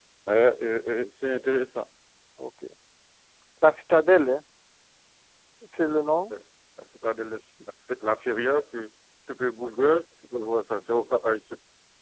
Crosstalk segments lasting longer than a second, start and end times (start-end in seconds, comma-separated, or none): none